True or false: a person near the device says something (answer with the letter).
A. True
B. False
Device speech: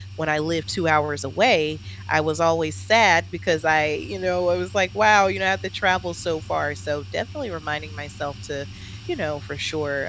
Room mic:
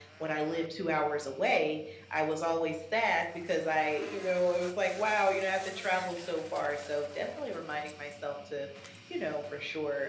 B